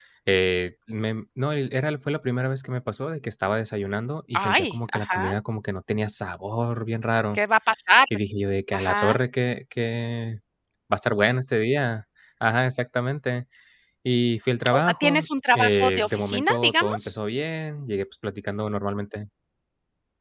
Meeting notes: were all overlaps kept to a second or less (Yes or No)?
No